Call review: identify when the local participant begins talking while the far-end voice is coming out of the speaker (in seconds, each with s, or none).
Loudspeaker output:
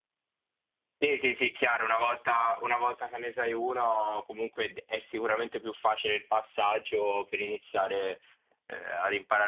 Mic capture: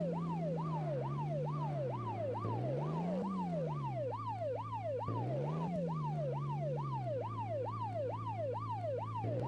none